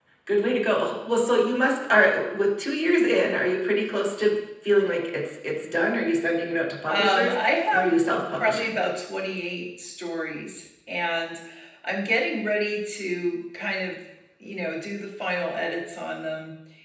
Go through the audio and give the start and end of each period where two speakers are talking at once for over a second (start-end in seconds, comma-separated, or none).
6.9-8.8